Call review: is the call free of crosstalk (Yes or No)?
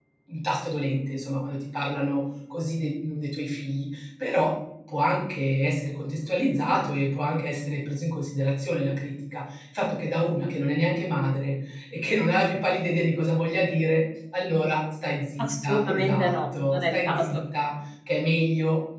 No